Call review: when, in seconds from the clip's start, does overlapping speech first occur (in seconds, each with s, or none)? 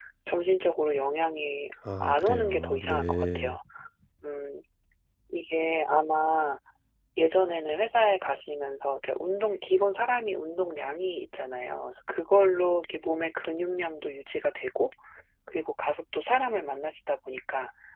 1.9 s